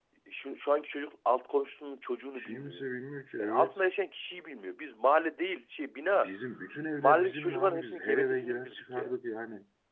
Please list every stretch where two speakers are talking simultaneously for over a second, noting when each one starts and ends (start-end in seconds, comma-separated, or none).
7.0-9.1